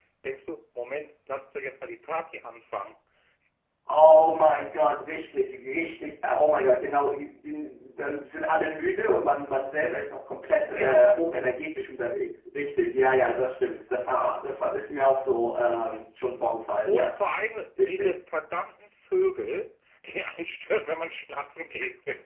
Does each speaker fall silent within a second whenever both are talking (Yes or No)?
Yes